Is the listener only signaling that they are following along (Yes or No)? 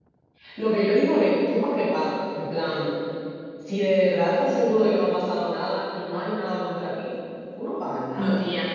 No